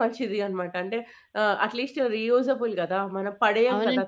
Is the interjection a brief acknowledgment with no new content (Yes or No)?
No